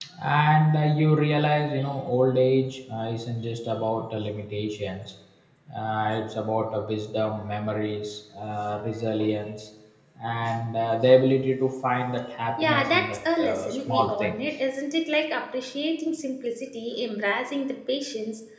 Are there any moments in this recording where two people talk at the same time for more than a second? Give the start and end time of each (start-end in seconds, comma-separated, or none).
12.6-14.4